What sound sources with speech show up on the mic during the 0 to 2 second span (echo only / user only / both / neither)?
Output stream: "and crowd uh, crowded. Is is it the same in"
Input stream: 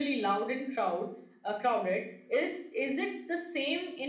echo only